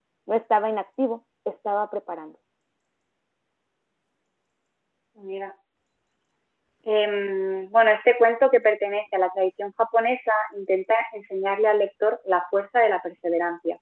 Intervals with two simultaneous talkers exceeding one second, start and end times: none

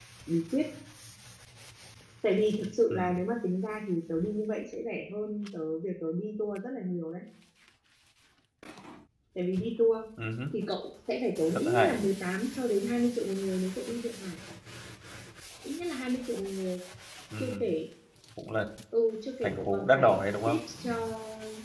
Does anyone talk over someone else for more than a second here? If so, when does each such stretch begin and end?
19.4-20.9

